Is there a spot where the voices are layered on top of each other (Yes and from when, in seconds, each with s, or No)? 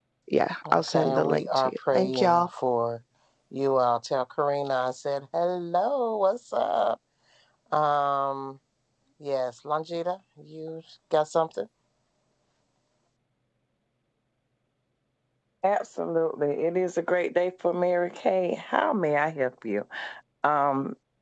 Yes, from 0.7 s